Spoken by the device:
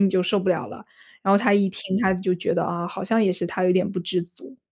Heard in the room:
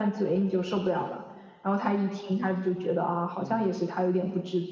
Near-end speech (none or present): present